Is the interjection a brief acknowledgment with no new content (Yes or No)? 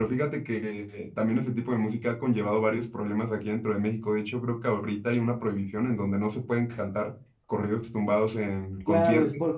No